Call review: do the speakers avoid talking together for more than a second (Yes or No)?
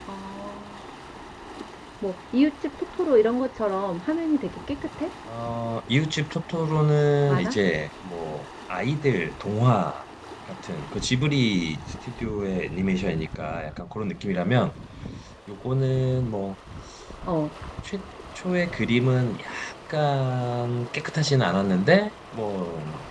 Yes